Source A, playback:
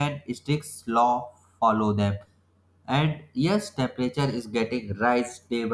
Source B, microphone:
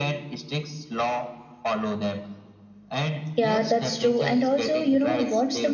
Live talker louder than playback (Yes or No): Yes